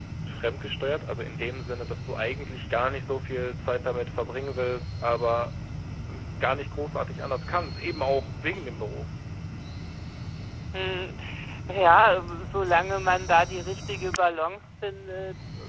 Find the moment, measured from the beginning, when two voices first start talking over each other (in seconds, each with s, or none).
none